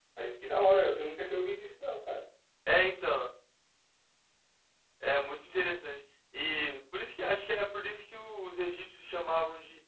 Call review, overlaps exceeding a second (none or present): none